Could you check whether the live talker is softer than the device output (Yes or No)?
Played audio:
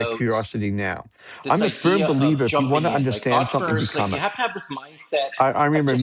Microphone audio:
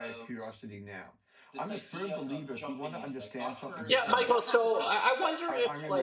No